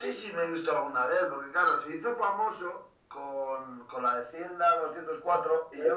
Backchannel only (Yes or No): No